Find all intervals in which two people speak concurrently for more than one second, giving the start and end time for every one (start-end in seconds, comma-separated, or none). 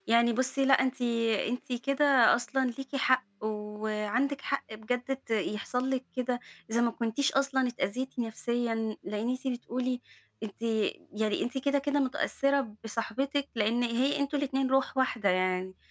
none